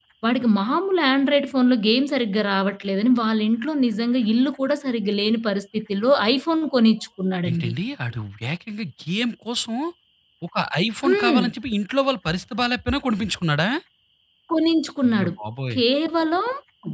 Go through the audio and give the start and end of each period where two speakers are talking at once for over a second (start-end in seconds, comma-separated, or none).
none